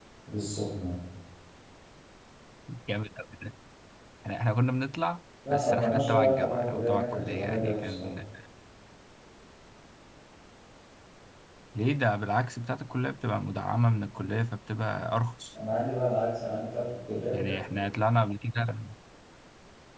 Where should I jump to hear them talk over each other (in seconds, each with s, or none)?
5.4 s